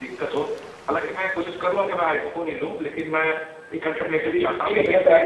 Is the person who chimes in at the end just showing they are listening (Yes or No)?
No